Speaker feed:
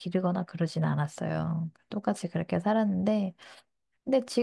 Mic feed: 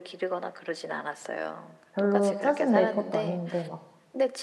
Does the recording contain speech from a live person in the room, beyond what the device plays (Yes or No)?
Yes